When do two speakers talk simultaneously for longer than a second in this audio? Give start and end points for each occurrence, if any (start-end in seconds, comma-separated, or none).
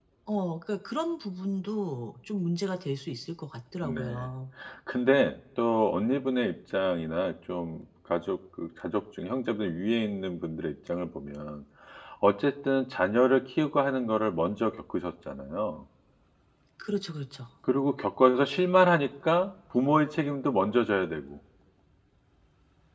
none